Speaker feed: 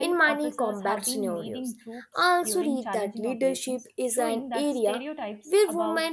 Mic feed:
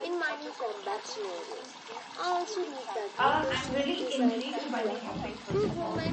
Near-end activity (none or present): present